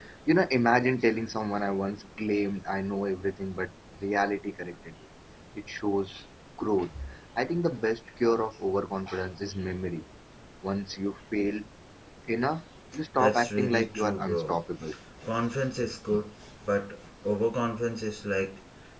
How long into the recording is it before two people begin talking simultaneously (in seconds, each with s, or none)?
13.2 s